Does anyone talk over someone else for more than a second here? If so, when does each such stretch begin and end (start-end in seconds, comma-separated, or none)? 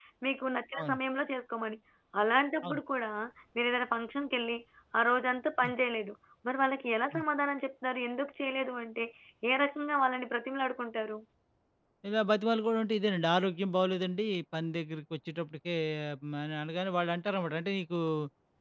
none